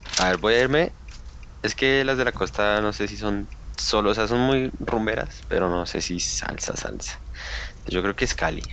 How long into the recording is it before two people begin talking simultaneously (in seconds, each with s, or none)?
none